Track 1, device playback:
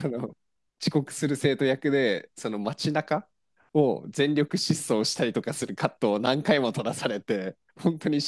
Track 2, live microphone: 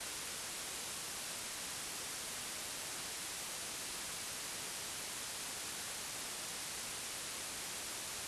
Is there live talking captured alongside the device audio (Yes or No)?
No